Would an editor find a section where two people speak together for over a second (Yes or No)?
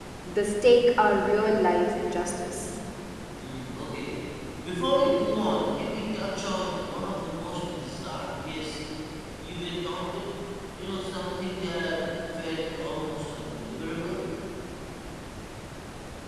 No